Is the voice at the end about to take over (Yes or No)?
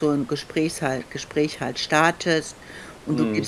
No